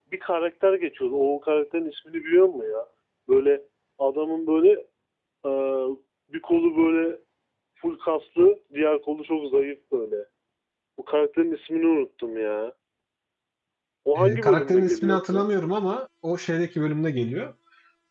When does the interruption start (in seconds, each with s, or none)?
14.2 s